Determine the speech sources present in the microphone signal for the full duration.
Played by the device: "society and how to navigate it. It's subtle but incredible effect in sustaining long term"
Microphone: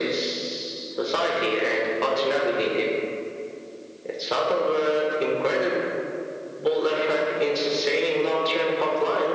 echo only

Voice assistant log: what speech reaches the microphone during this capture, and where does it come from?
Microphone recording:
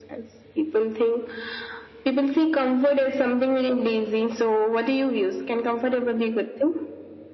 echo only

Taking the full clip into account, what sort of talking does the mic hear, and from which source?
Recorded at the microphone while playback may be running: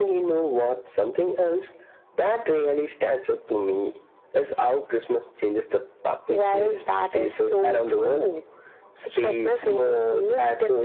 echo only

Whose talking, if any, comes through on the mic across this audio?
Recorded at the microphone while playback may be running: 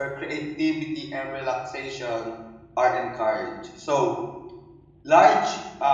user only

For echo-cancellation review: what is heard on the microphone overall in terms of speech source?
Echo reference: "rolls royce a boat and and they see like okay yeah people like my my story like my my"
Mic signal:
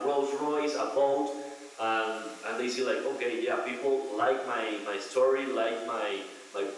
echo only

